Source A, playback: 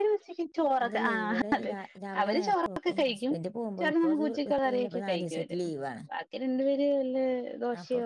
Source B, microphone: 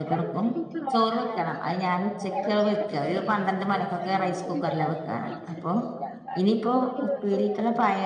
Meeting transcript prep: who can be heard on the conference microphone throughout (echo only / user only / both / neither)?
both